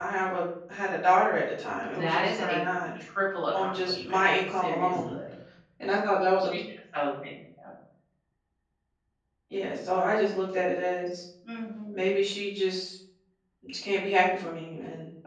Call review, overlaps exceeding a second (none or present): present